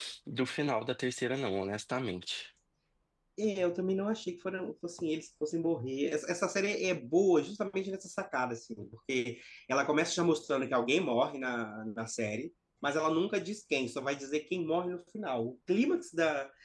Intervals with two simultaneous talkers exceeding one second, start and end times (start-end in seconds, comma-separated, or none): none